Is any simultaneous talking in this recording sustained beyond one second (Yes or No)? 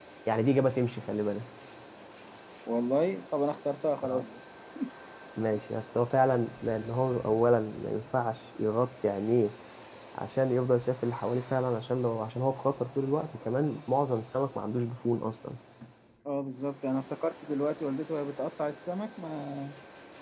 No